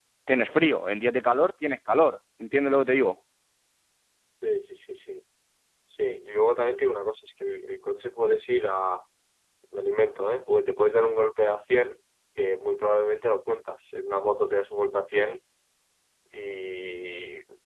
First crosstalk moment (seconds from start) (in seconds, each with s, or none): none